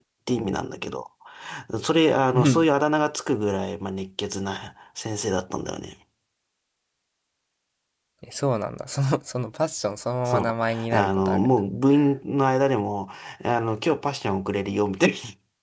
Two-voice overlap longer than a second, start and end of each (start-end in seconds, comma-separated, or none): 10.2-11.6